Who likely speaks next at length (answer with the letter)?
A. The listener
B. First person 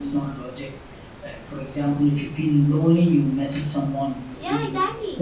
B